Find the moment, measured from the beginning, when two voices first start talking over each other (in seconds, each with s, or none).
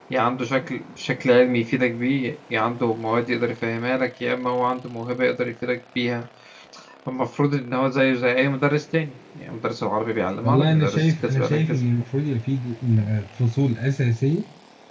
10.4 s